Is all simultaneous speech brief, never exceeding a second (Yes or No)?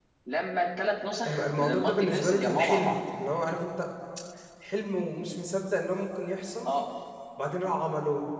No